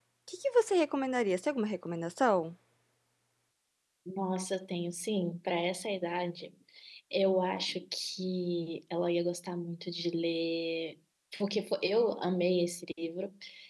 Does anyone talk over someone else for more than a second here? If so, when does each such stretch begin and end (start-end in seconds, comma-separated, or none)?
none